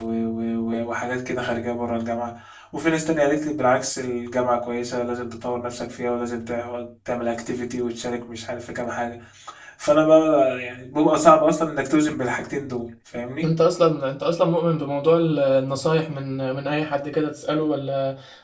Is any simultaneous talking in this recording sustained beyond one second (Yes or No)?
No